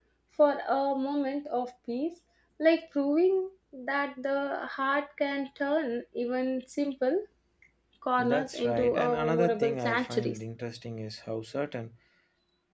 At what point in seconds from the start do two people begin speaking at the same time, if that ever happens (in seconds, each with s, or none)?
8.2 s